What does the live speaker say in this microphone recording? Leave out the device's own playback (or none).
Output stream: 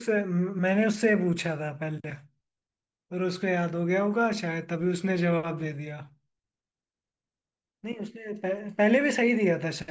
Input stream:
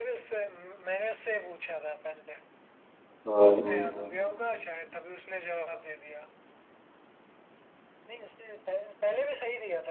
हाँ